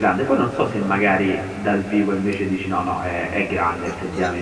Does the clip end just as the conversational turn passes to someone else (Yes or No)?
Yes